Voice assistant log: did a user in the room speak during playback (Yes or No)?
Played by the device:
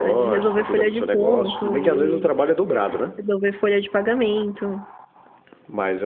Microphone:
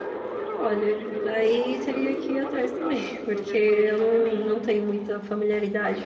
Yes